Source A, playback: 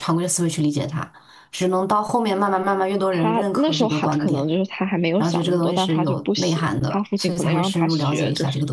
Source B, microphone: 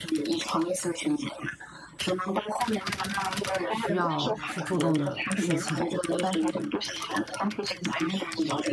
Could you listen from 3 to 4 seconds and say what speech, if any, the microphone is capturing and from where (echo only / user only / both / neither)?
both